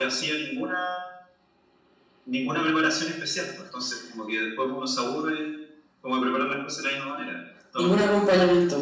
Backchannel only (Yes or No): No